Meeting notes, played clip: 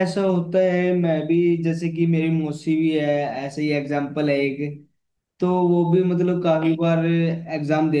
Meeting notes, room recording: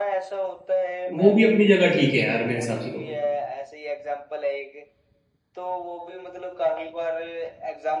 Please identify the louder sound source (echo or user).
user